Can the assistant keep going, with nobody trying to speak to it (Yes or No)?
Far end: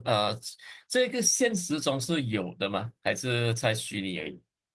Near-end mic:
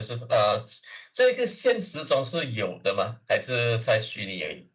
Yes